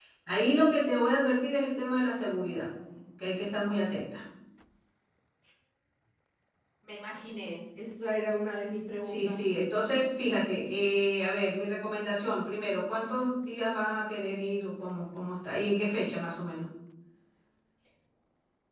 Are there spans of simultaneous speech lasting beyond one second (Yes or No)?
No